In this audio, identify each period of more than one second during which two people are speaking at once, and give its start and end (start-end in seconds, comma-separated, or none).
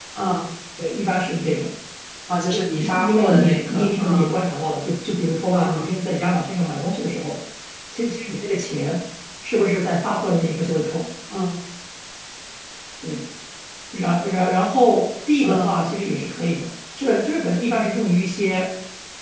2.8-4.3